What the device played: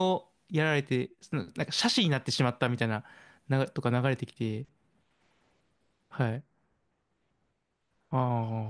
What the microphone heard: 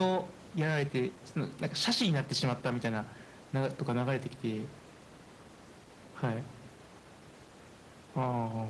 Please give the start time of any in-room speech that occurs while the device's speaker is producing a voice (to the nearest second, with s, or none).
none